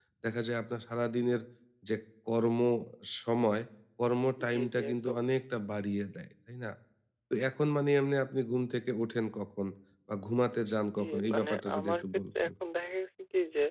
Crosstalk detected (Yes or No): Yes